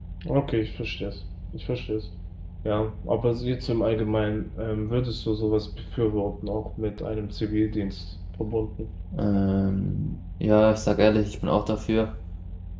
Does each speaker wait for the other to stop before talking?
Yes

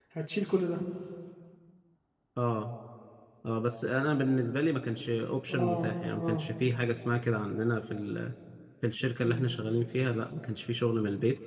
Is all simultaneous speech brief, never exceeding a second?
Yes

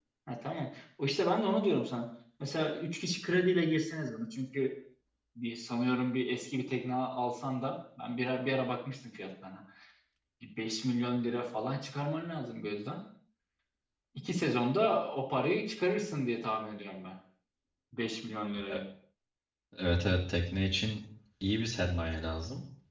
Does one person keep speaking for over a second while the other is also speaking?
No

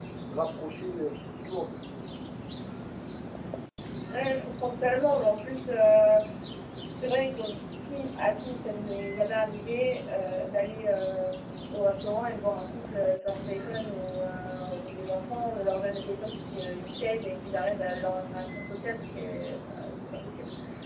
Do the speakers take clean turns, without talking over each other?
Yes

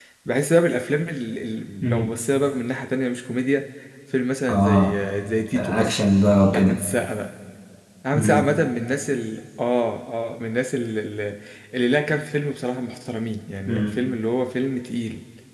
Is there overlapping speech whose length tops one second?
No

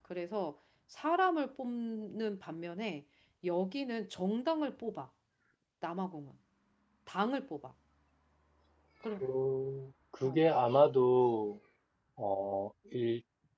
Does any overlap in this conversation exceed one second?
No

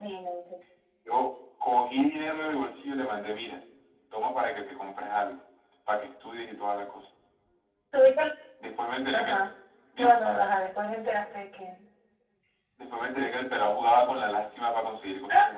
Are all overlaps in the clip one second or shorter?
Yes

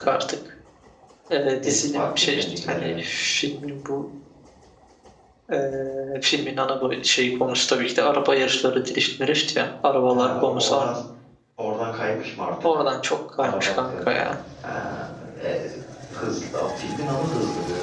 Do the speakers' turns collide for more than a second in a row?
Yes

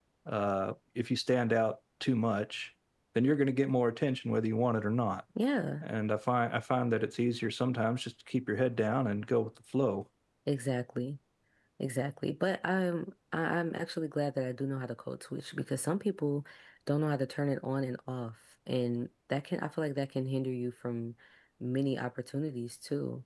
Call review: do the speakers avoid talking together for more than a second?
Yes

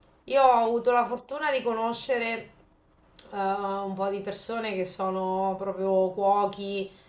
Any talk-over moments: No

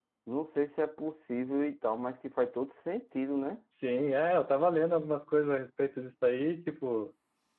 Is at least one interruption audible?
No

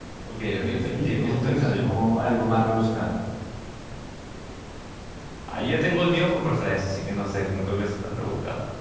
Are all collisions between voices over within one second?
No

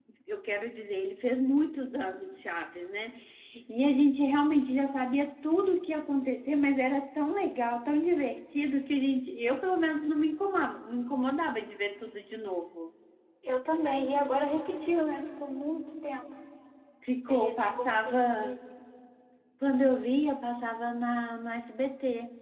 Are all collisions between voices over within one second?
No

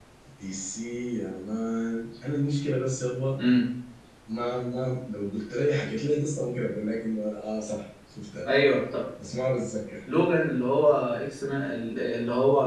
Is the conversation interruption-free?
Yes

